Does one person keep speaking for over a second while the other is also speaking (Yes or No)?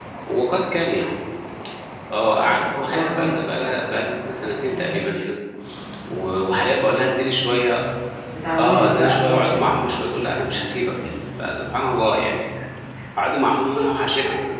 Yes